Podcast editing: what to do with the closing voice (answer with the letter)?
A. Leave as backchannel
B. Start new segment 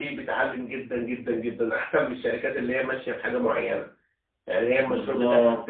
B